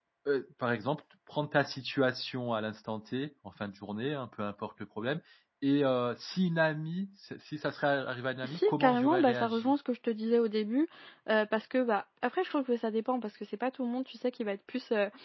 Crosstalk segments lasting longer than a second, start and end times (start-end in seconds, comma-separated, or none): 8.4-9.7